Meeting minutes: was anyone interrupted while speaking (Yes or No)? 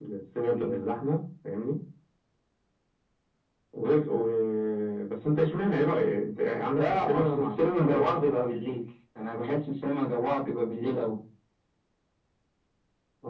Yes